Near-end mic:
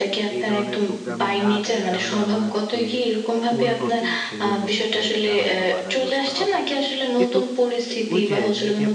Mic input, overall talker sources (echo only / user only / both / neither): both